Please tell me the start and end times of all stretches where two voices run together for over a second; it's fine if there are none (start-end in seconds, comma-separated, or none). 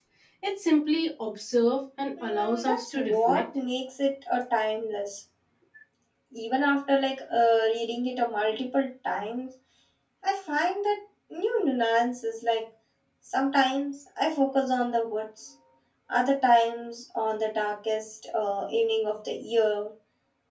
2.2-3.4